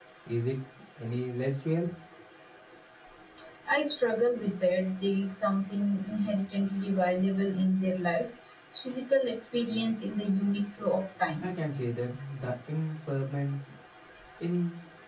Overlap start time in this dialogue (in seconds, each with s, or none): none